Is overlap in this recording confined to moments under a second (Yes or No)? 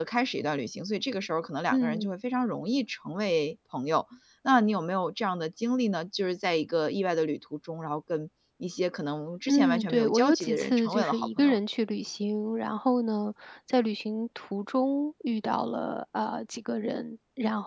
No